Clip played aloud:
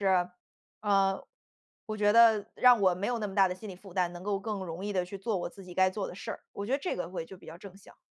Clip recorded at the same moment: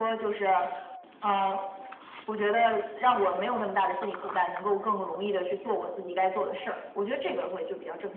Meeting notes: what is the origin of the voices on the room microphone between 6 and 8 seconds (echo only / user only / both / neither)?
echo only